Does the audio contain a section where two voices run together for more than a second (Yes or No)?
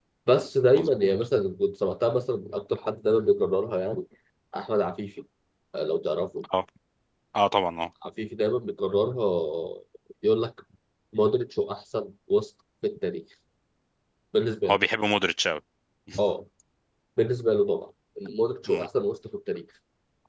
No